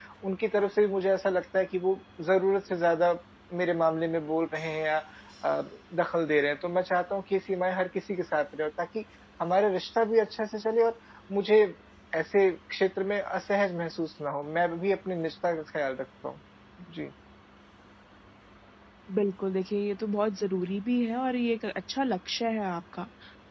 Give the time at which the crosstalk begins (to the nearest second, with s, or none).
none